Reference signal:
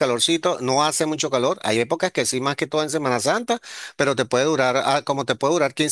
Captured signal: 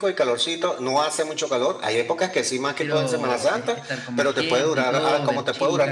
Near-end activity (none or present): present